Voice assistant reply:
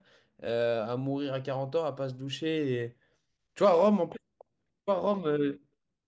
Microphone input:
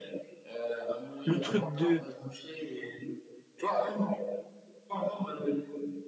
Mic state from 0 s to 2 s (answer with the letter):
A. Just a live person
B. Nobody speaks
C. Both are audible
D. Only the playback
C